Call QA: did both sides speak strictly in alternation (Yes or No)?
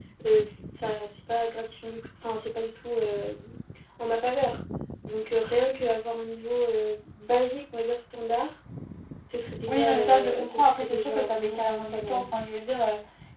No